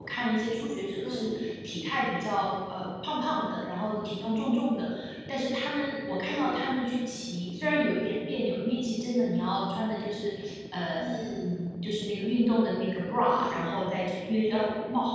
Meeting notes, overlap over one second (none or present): none